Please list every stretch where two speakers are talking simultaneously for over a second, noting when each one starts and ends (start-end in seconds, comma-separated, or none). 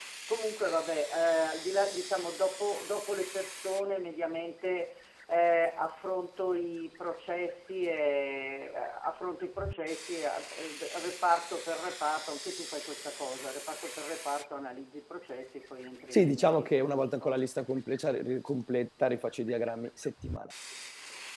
16.1-17.4